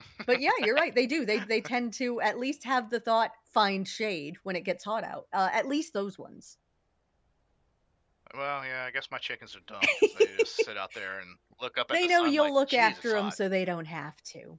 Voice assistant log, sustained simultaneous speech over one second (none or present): present